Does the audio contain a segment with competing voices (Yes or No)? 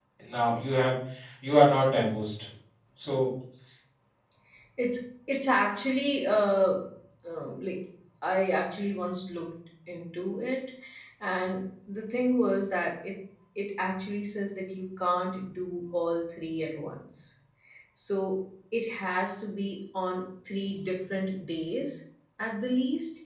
No